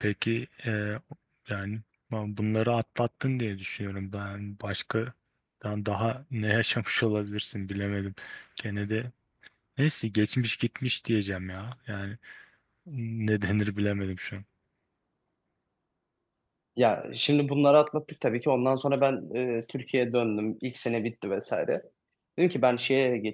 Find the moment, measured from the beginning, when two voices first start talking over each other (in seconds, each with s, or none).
none